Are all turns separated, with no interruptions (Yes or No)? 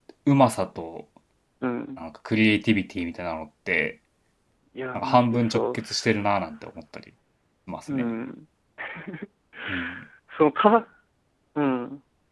No